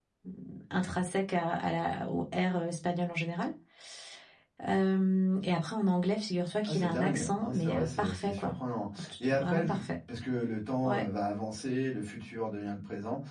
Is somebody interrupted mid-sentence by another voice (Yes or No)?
Yes